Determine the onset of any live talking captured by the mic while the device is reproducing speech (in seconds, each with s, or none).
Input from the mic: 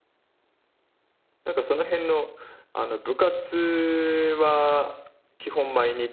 1.4 s